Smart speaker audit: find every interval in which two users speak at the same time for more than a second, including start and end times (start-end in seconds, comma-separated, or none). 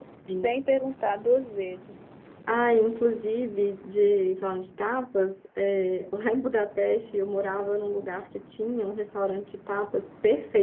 none